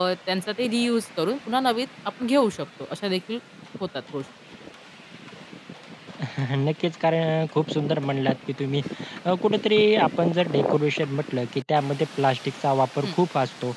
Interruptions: none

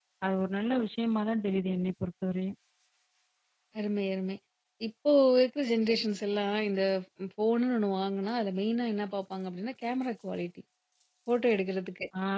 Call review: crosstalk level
none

